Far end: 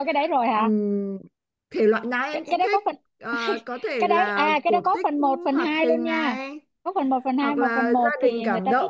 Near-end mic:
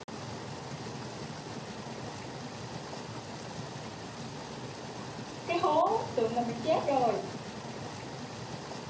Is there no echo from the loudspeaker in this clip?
Yes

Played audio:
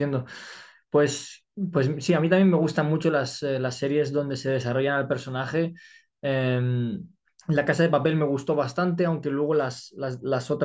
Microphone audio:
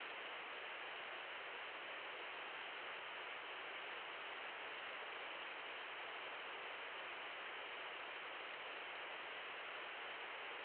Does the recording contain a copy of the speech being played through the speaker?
No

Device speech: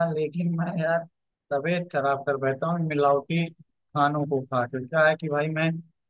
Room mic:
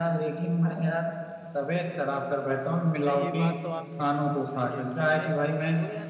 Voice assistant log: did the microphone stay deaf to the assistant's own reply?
No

